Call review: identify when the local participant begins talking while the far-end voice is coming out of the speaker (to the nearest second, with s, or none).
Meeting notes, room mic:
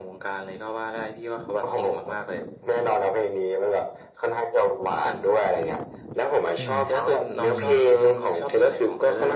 7 s